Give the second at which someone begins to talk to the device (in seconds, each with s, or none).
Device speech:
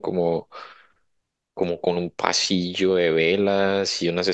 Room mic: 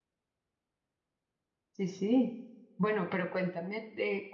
1.7 s